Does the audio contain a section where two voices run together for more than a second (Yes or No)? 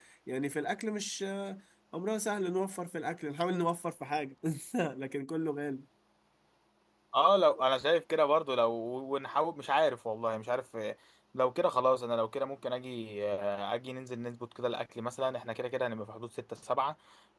No